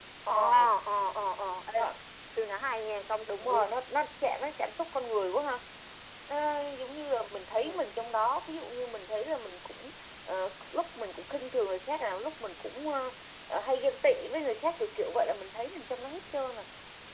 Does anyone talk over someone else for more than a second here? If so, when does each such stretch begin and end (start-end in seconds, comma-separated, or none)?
none